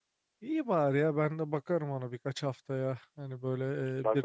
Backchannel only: Yes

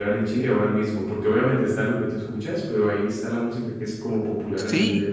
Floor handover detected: Yes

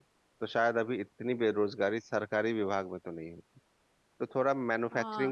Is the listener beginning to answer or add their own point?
Yes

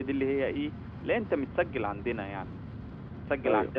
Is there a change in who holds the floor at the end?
No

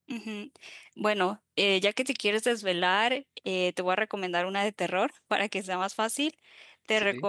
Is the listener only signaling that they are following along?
Yes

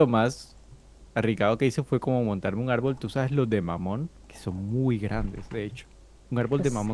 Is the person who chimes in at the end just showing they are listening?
Yes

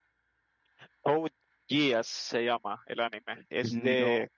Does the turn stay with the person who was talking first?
Yes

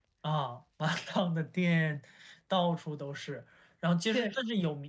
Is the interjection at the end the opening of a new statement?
No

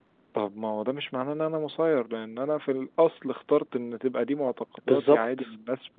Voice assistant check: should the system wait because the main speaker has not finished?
Yes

